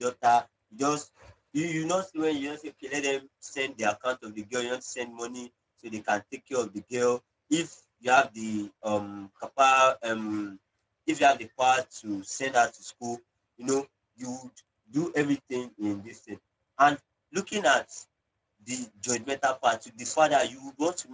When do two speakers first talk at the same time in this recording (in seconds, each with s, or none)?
none